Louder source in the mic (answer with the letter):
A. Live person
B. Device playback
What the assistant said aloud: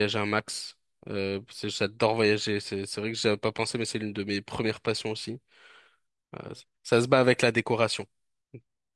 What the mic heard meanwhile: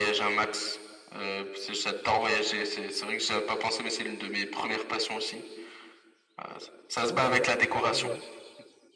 B